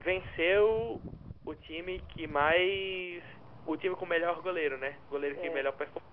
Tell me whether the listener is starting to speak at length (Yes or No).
No